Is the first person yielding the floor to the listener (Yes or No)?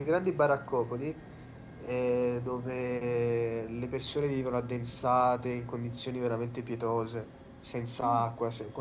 No